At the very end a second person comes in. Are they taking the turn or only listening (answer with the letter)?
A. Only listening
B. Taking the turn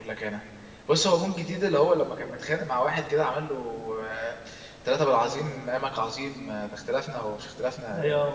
B